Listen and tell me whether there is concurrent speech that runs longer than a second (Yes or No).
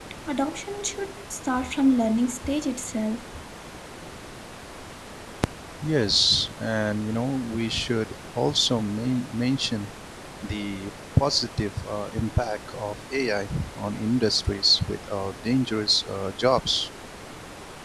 No